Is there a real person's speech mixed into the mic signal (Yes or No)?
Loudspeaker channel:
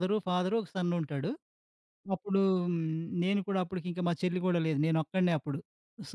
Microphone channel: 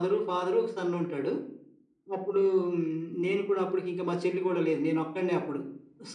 No